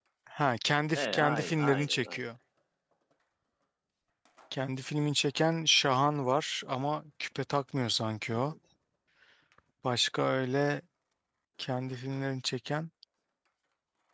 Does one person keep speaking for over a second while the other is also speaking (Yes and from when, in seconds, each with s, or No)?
Yes, from 1.0 s